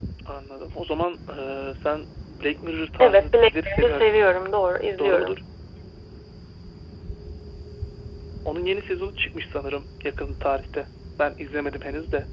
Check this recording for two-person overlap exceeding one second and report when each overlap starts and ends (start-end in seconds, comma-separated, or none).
3.0-4.2